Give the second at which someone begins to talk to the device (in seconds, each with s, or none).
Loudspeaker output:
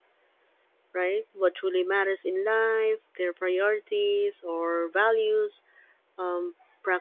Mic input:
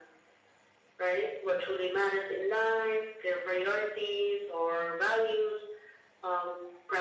none